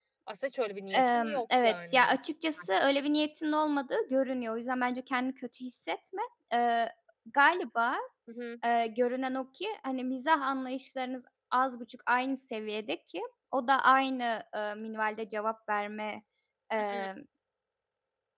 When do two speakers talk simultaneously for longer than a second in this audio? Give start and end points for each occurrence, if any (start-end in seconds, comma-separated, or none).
0.9-2.2